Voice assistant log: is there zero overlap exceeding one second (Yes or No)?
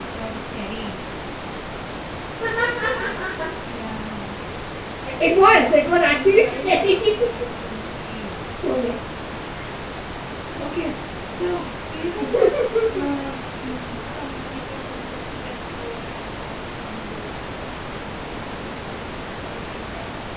No